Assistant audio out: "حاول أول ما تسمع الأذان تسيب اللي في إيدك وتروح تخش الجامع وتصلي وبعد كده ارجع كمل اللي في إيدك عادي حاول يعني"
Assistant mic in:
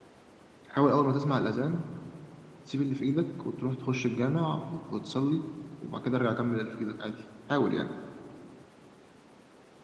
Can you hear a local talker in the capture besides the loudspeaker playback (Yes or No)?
No